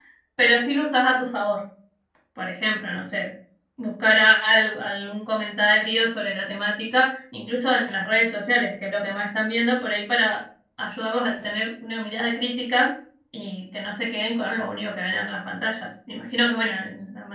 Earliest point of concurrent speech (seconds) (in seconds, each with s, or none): none